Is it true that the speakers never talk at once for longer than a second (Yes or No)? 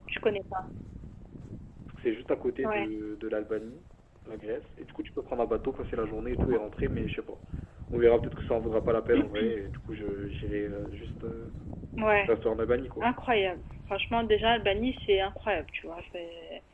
Yes